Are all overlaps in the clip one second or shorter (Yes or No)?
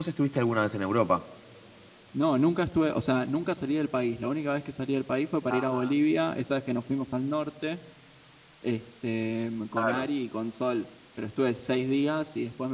Yes